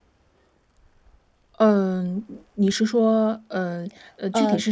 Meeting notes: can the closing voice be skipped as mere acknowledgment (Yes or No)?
No